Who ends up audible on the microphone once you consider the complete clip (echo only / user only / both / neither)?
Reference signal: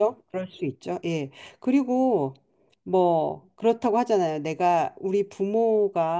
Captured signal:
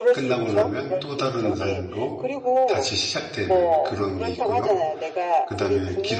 both